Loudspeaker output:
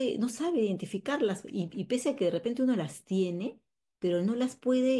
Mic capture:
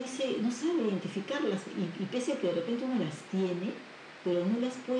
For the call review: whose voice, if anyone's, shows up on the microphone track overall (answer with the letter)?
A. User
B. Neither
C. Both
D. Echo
D